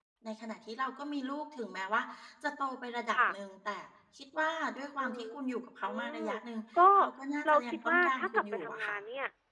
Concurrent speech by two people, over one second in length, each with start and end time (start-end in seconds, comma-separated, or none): 7.5-9.0